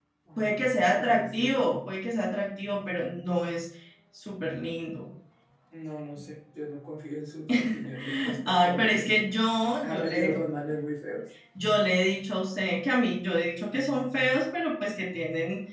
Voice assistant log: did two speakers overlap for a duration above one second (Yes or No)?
Yes